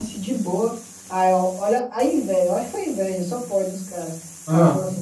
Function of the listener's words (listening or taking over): listening